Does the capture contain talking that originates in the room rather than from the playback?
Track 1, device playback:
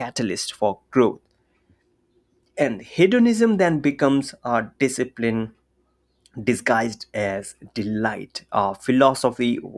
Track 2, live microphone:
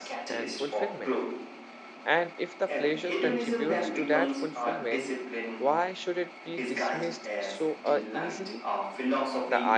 Yes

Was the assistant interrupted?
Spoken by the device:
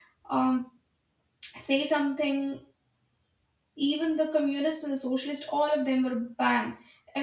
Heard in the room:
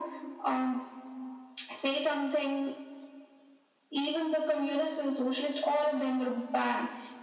No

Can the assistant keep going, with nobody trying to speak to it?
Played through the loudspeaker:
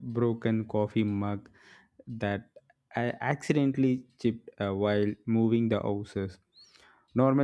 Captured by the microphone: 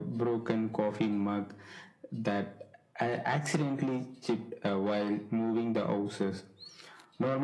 Yes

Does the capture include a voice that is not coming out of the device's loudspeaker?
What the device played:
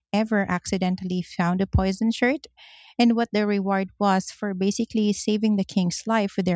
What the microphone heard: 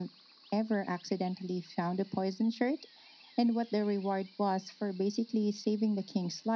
No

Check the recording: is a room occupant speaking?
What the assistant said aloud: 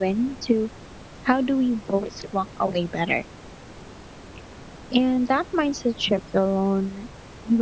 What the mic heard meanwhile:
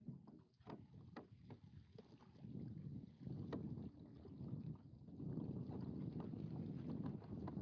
No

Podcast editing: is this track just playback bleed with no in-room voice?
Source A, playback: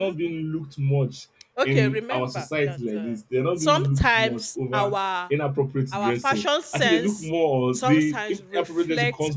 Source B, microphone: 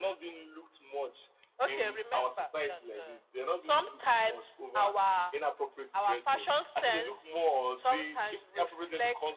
Yes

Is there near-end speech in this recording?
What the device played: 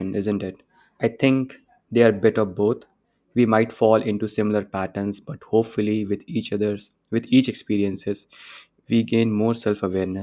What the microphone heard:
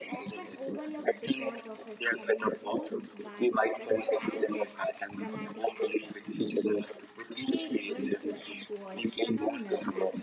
Yes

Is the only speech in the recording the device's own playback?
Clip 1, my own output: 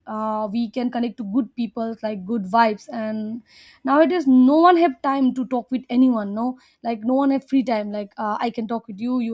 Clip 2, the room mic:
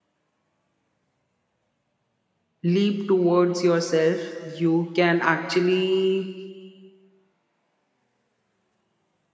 No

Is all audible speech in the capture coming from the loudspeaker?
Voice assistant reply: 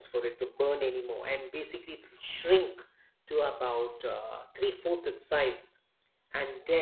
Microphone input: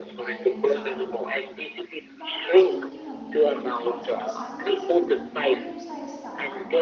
No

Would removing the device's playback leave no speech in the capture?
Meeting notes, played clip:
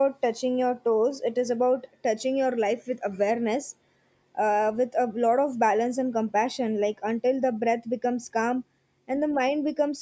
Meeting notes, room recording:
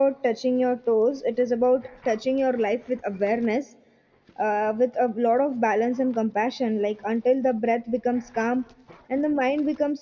Yes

